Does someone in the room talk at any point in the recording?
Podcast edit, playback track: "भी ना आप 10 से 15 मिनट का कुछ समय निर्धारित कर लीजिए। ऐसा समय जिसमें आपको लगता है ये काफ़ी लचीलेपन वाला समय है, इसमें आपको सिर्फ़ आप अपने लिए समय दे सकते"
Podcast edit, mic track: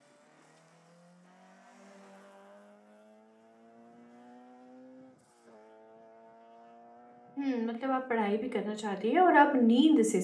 Yes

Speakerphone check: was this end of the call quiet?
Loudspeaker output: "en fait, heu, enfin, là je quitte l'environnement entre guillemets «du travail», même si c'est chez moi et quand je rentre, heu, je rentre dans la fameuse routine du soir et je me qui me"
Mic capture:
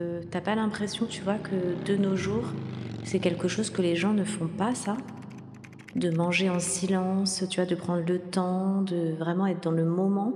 No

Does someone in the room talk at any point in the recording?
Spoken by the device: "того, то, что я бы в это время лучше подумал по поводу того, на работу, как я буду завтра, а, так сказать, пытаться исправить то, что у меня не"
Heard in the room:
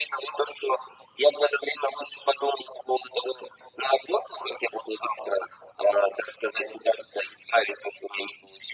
No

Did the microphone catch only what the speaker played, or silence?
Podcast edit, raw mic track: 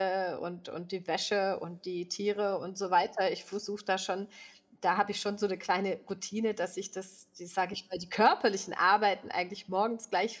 No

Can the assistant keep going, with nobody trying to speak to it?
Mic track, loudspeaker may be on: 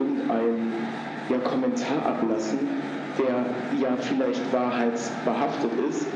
Yes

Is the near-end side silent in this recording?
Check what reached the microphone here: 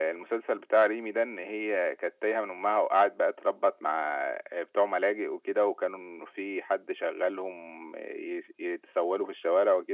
Yes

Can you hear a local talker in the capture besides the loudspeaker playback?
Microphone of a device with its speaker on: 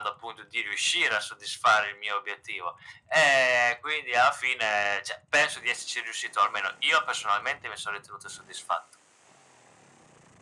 No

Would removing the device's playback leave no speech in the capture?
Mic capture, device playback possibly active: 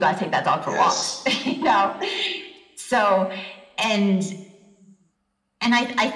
No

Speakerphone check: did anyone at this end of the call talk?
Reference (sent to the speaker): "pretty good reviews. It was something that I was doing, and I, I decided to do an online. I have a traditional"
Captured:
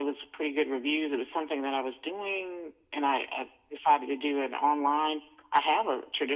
No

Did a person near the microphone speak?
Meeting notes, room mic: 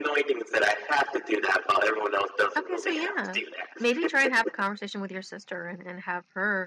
Yes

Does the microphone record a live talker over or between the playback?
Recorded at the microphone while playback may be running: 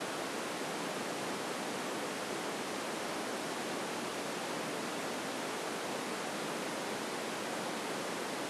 No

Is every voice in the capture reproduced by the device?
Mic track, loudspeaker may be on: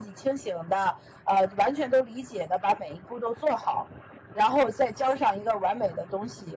Yes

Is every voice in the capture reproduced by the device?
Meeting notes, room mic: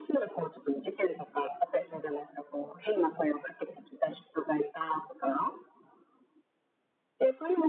Yes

